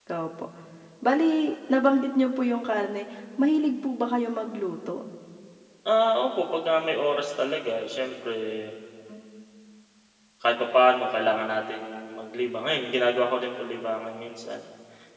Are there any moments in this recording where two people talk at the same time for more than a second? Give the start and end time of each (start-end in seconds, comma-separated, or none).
none